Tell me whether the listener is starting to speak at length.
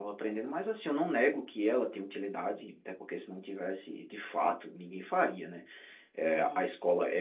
No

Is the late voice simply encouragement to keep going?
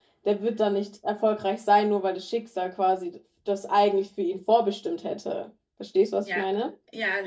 No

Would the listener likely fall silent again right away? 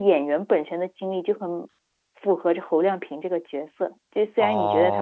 No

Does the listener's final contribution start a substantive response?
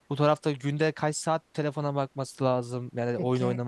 No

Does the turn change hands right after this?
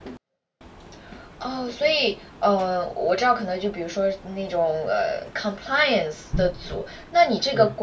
No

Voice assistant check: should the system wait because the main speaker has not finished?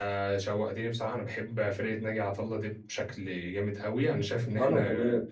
Yes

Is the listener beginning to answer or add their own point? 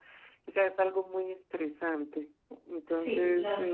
Yes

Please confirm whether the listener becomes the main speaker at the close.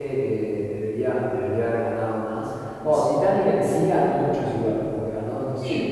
Yes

